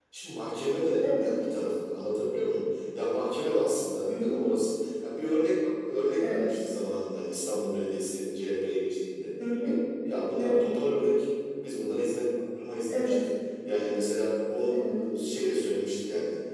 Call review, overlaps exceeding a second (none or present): none